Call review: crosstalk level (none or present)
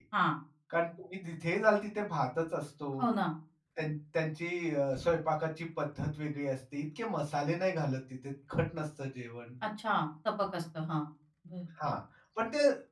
none